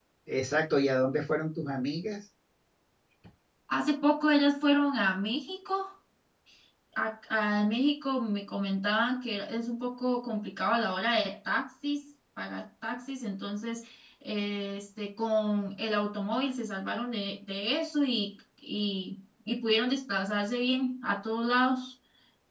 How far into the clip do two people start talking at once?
none

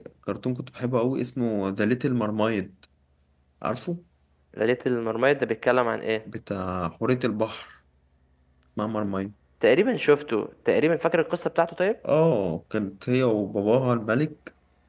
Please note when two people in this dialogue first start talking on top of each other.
none

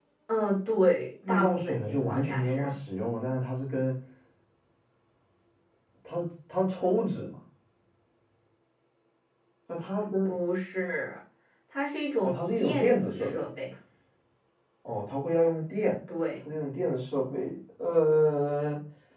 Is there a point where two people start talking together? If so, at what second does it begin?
1.3 s

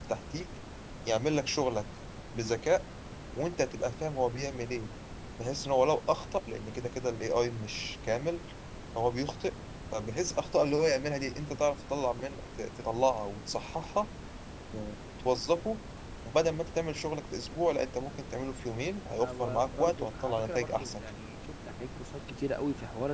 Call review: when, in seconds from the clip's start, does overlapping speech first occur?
19.2 s

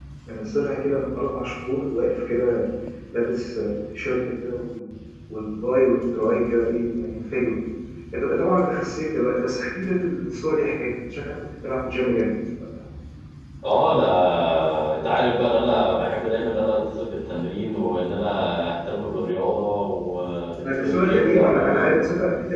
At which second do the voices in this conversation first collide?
20.6 s

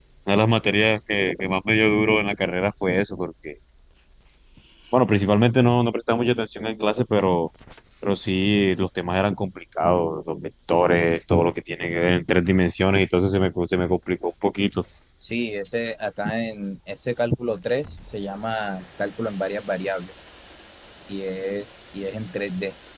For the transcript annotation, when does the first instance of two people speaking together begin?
none

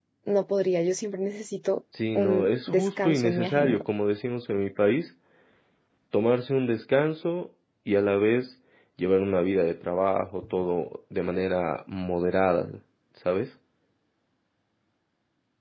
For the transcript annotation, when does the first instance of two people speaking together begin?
1.9 s

